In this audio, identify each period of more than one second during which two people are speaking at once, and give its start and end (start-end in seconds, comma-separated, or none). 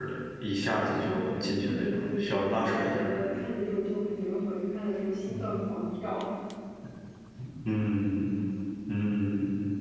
1.6-3.1